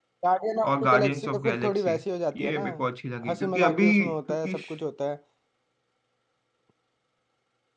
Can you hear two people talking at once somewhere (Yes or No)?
Yes